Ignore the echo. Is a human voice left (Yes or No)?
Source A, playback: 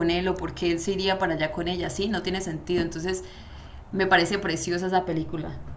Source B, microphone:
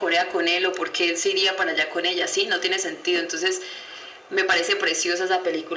No